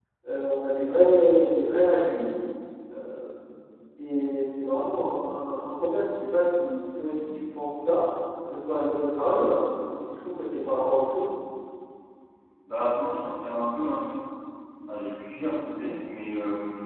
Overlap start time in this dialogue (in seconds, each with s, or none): none